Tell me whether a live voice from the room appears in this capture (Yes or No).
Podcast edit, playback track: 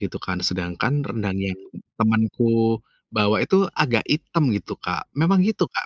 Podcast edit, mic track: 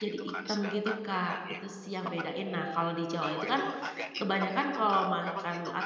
Yes